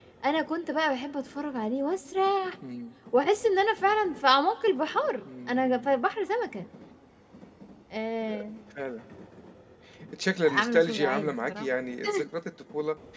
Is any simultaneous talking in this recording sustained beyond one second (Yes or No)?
Yes